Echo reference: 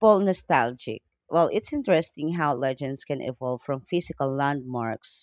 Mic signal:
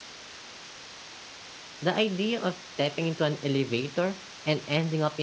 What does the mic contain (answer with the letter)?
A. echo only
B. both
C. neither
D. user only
D